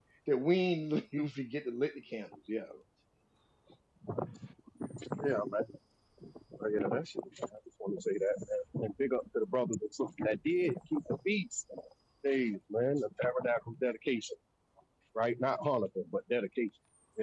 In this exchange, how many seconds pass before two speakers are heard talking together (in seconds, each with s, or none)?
none